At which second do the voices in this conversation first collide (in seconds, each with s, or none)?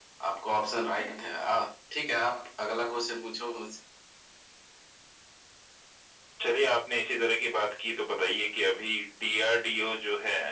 none